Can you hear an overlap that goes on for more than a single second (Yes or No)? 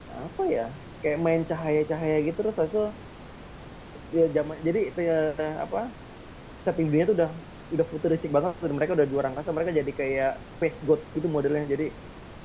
No